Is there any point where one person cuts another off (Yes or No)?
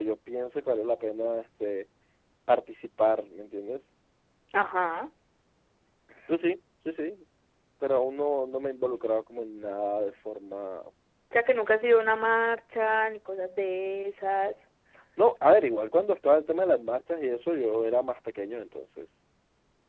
No